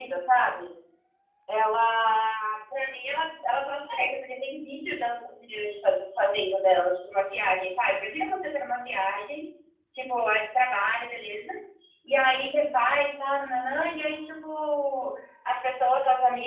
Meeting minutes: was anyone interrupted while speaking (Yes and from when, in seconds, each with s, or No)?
No